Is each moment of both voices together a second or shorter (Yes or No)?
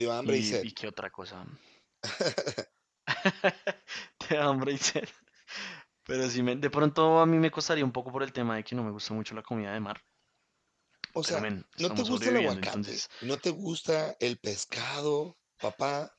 No